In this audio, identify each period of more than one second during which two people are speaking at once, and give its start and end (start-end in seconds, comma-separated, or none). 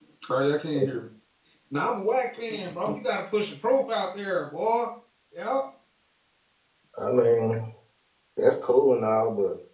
none